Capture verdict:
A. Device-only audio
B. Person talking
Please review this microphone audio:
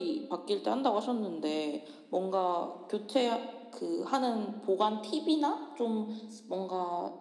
A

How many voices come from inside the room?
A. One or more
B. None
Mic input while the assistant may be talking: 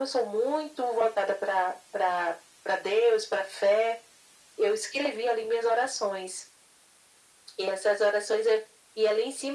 B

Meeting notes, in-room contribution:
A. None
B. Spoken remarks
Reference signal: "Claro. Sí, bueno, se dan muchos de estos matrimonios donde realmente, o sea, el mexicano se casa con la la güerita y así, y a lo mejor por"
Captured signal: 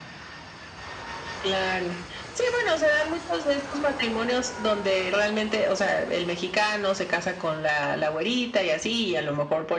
A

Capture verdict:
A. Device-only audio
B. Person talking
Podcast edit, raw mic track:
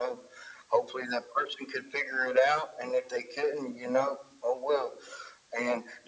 A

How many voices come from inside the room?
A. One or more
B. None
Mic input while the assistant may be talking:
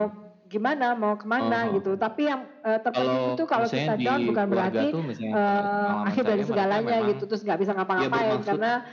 B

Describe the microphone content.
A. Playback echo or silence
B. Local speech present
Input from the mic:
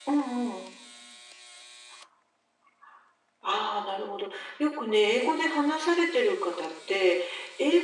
A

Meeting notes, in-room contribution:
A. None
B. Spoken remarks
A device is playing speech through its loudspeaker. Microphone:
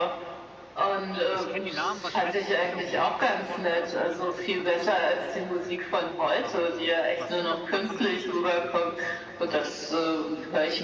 B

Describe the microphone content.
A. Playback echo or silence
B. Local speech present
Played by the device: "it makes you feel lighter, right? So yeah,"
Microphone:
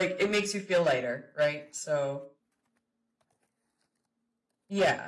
A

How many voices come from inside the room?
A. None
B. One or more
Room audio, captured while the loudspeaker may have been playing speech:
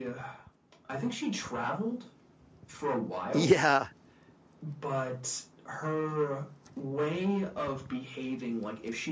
B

